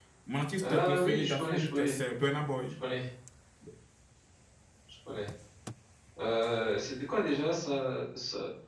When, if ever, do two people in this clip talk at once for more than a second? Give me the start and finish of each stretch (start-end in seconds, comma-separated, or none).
0.6-2.0